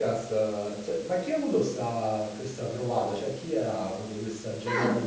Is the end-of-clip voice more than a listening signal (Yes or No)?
Yes